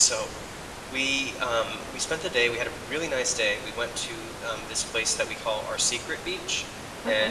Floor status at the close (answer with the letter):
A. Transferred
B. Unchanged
B